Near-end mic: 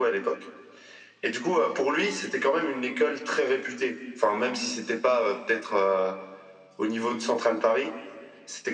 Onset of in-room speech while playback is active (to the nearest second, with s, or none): none